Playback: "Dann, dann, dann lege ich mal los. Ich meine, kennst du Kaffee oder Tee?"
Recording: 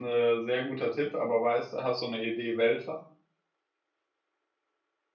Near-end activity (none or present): present